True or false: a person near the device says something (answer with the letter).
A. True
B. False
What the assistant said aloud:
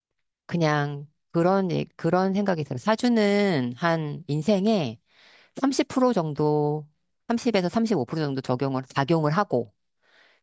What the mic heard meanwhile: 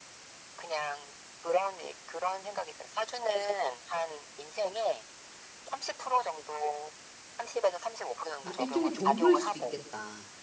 A